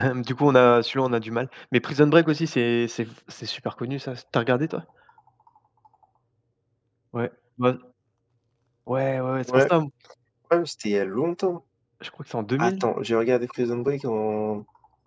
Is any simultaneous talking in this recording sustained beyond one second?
No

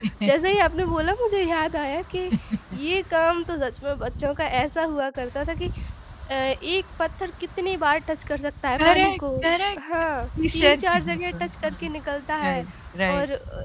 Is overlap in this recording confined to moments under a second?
No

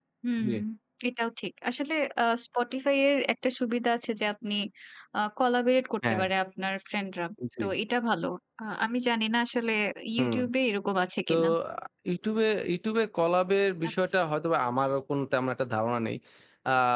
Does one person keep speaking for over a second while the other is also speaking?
No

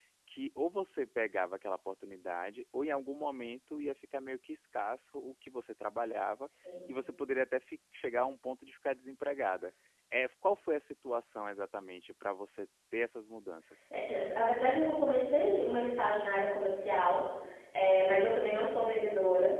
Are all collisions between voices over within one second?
Yes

